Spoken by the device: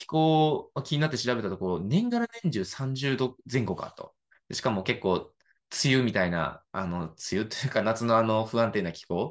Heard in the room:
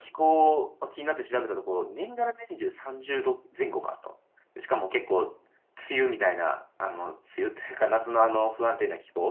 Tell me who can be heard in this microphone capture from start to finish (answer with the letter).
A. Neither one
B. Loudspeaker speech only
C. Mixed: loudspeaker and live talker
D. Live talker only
B